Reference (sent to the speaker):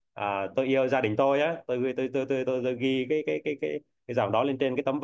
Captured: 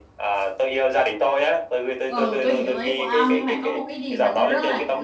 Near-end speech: present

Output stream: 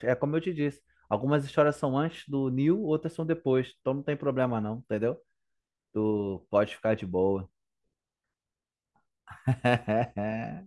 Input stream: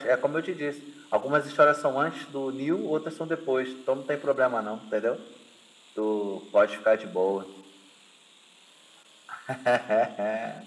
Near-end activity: none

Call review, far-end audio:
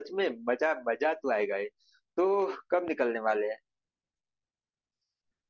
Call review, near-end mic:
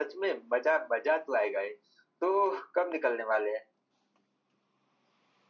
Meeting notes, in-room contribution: none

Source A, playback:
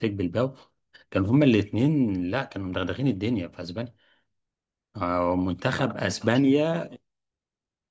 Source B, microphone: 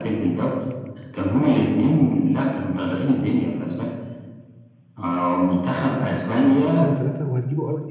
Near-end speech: present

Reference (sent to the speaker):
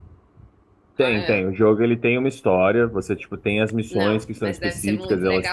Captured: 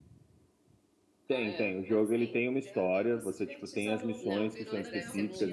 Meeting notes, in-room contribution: present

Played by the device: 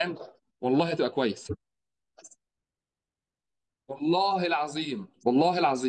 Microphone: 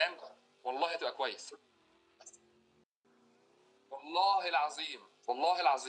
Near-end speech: none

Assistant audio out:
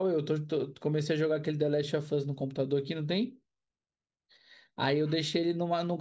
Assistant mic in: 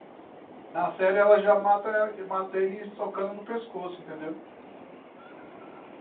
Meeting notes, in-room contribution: present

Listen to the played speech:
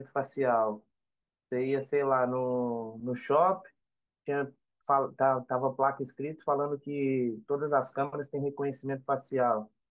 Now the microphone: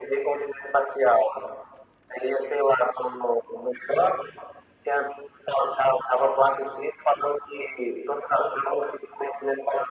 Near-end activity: none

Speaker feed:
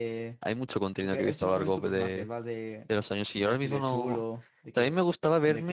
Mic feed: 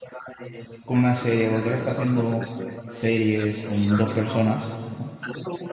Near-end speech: present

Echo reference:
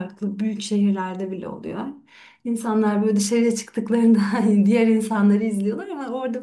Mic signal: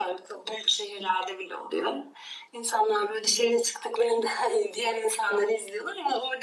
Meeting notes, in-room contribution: none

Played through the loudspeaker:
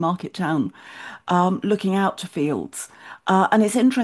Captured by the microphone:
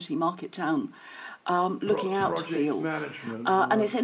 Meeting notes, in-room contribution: present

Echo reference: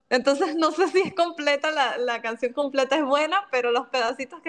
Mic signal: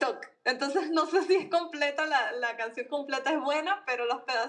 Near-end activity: none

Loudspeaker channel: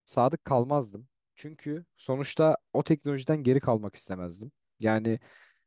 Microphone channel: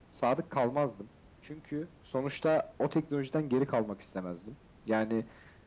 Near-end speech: none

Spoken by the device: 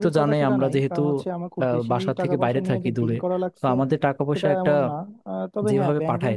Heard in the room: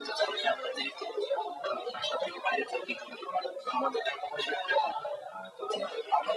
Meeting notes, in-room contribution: none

